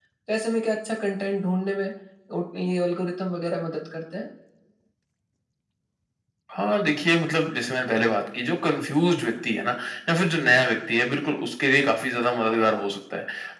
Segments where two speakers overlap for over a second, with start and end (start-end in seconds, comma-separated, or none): none